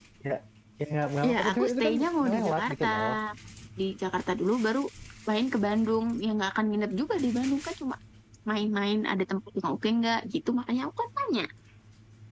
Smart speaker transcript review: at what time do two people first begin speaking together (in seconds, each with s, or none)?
1.3 s